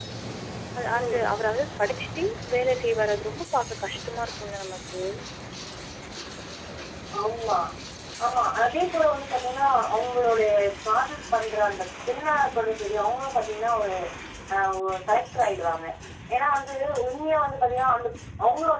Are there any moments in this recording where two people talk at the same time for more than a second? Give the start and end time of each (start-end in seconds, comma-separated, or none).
none